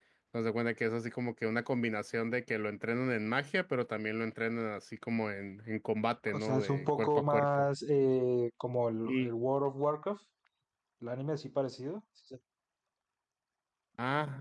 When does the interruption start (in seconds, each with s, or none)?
6.3 s